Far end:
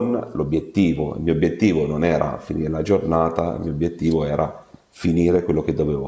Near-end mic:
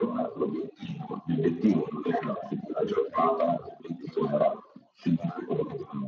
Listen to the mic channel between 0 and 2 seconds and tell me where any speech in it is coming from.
echo only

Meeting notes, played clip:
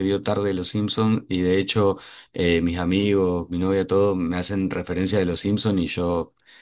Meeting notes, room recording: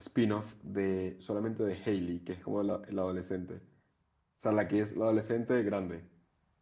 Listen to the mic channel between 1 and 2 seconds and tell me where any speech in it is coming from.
user only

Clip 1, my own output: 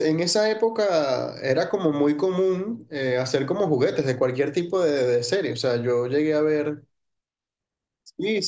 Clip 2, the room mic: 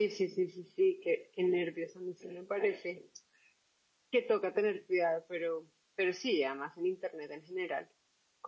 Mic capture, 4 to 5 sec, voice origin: user only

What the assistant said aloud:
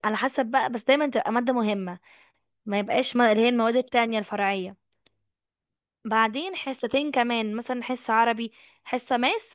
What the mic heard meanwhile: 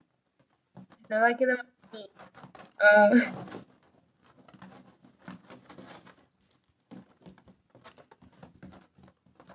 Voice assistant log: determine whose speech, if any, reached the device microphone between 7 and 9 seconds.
neither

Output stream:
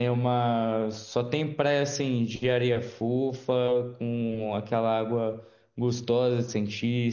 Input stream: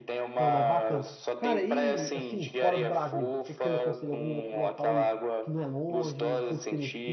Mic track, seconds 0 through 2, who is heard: both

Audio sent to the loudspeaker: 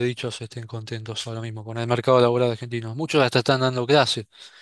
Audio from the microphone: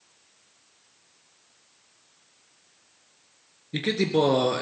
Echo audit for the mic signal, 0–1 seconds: neither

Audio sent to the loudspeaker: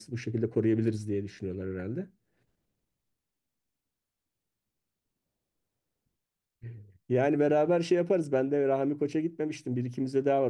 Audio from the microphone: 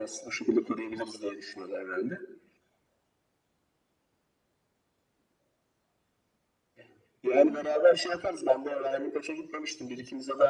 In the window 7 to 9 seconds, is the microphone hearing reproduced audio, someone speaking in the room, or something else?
echo only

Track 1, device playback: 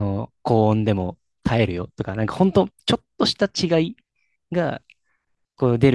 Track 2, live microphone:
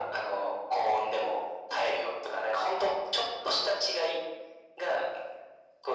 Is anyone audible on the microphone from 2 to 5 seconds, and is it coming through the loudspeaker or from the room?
echo only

